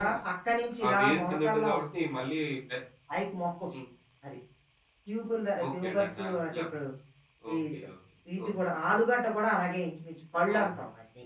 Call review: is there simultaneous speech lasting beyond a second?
Yes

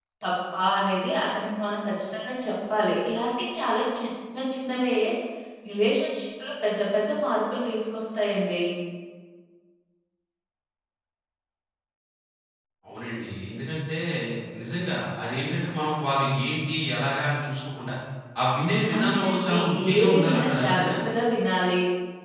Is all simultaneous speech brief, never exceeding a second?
No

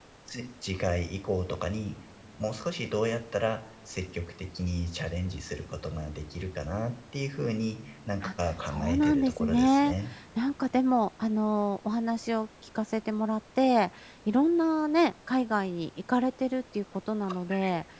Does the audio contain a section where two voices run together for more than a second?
Yes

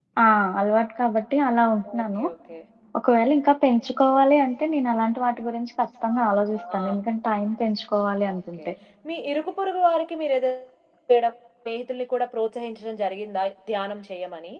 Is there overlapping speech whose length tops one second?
No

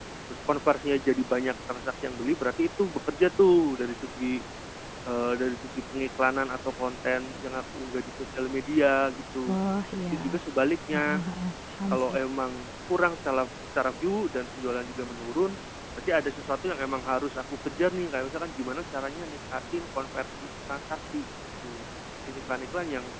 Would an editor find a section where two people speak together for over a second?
No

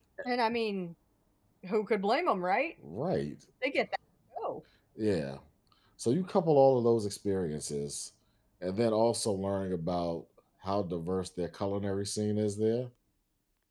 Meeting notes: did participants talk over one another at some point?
No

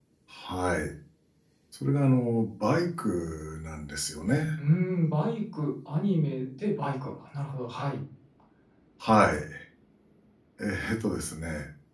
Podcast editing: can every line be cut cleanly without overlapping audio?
Yes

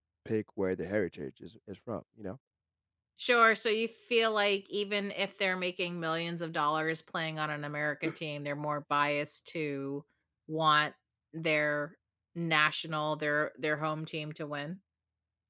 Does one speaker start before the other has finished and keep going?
No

